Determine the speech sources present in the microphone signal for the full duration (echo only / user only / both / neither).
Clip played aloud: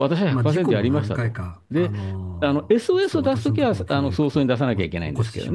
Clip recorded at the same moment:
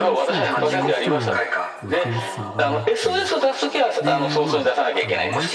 both